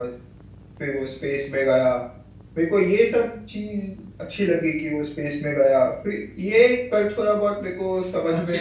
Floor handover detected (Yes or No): Yes